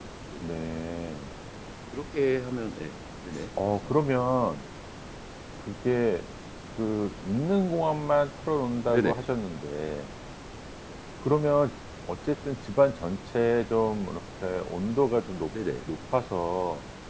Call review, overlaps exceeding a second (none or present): none